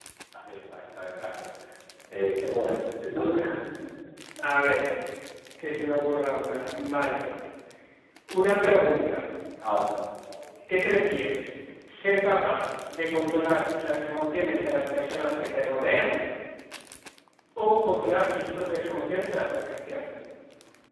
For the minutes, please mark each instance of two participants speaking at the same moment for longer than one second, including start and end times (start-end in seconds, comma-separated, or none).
none